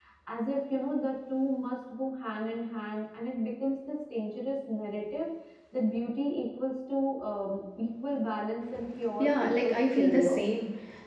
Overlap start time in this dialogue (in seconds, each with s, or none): 9.2 s